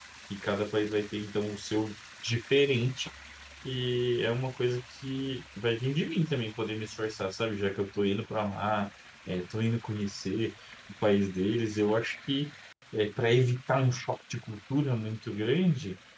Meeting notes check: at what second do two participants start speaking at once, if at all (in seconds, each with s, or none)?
none